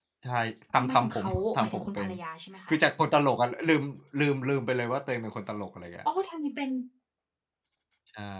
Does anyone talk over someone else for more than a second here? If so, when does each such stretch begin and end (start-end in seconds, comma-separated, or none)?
0.7-2.1